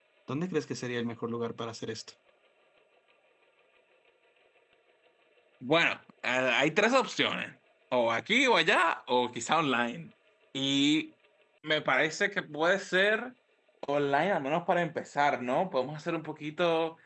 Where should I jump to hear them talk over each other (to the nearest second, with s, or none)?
none